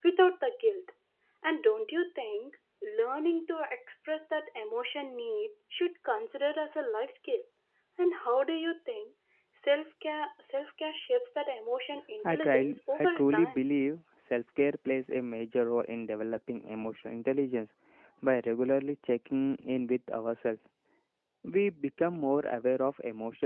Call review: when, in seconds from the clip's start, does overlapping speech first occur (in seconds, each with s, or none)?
12.2 s